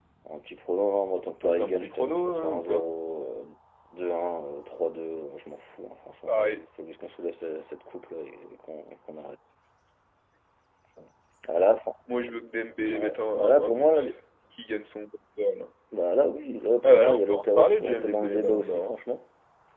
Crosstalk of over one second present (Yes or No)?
Yes